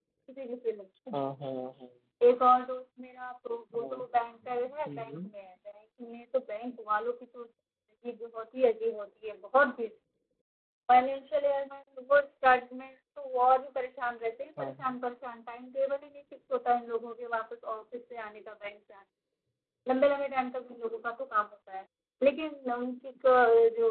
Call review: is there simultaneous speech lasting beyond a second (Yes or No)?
No